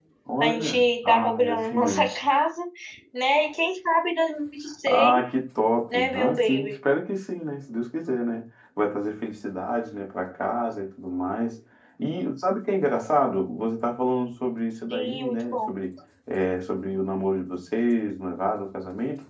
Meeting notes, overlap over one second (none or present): present